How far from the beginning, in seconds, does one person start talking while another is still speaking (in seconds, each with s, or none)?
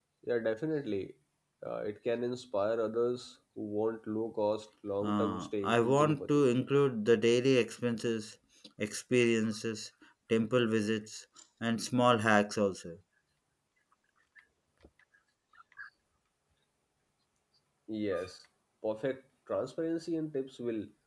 5.0 s